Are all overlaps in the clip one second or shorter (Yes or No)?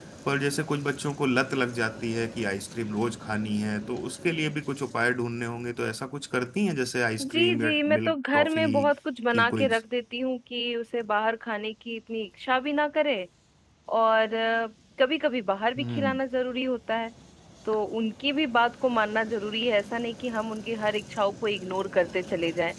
No